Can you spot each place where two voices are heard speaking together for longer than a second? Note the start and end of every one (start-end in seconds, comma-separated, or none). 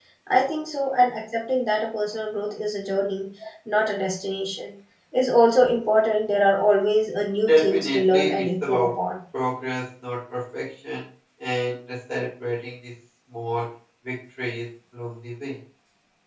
7.5-8.9